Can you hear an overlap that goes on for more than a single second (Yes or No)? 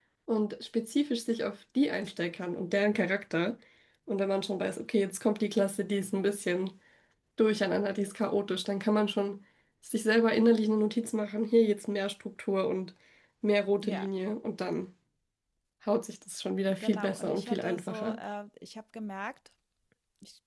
Yes